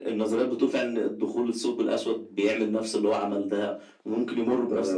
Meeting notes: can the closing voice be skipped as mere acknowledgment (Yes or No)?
No